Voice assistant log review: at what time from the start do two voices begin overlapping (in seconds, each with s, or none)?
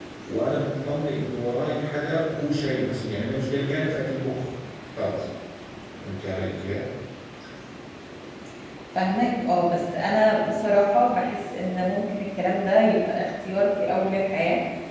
none